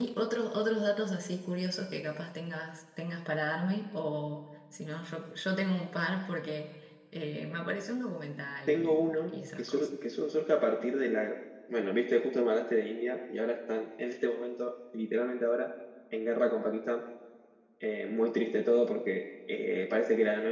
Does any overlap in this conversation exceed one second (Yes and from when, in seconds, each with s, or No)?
Yes, from 8.7 s